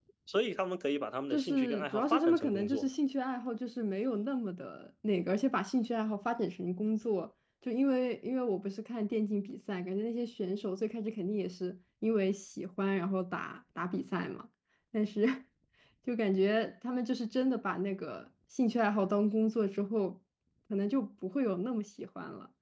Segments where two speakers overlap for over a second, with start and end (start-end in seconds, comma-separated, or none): 1.3-2.9